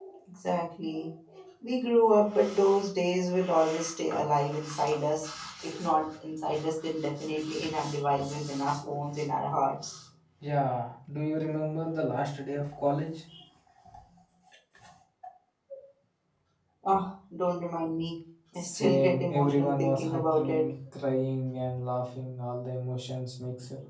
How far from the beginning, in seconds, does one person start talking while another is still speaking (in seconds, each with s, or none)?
18.5 s